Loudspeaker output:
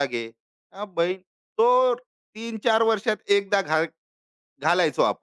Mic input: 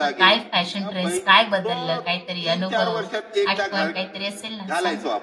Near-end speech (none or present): present